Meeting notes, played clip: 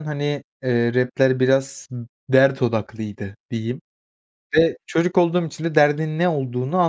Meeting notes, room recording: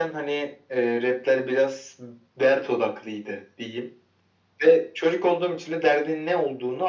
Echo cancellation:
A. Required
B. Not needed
A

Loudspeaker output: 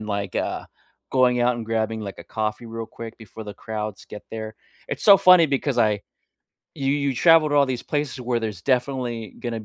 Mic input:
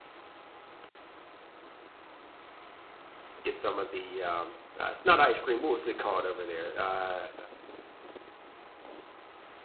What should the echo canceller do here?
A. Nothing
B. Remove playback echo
A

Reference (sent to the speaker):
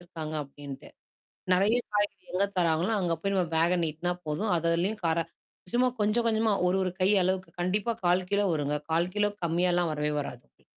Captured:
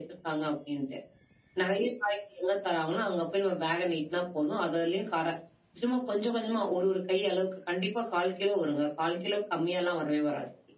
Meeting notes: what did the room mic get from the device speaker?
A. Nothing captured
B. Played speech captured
B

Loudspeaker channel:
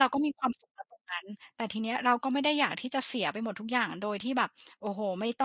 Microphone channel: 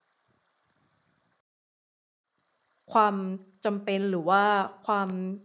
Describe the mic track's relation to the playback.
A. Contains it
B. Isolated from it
B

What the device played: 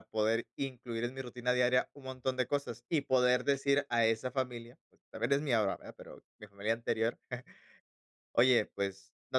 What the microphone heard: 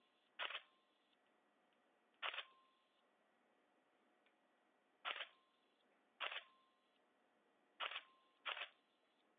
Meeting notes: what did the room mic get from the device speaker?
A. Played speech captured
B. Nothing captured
B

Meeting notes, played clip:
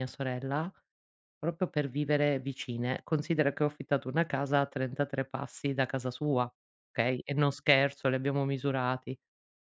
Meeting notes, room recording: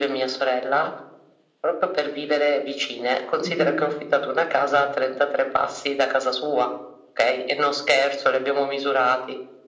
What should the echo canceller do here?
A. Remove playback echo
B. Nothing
A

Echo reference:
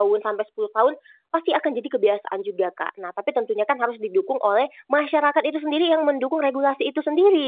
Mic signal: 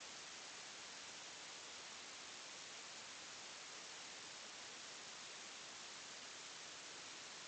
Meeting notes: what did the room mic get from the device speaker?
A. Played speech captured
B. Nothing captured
B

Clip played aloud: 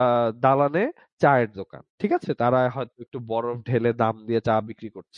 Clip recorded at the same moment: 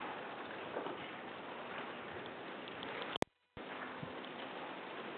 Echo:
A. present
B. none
B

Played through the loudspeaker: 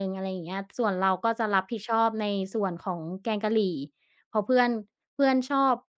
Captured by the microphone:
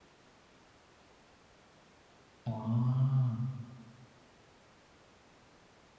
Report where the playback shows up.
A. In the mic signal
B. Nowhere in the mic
B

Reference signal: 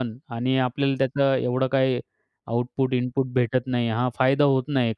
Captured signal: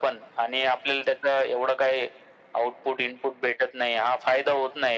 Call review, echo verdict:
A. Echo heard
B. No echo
A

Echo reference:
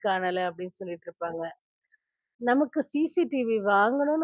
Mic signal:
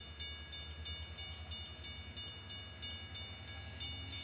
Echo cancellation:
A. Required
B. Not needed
B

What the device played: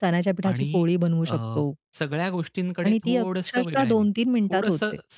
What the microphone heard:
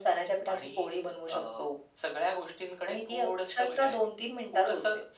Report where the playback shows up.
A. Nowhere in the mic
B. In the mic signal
B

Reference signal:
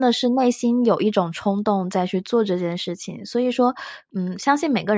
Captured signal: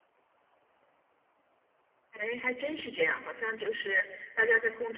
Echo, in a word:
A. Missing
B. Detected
A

